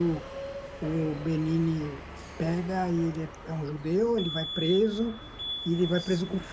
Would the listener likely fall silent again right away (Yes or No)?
Yes